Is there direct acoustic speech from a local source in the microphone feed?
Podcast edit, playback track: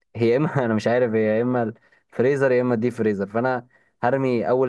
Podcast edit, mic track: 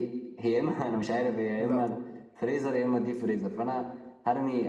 Yes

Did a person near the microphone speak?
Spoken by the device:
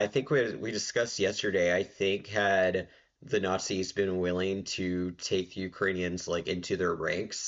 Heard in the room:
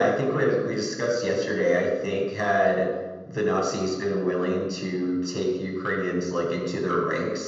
No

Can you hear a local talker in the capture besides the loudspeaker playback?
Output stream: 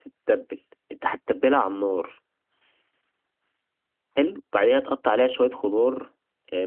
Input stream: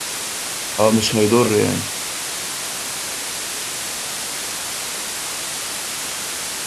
Yes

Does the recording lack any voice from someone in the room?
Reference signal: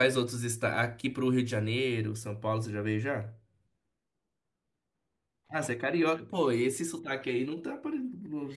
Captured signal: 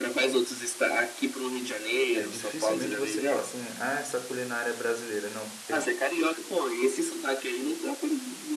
No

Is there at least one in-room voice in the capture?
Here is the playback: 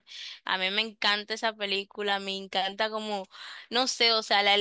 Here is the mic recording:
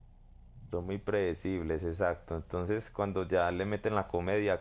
Yes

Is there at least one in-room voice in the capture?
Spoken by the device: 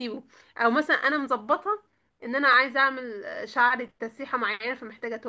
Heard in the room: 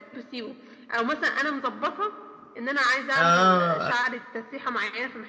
Yes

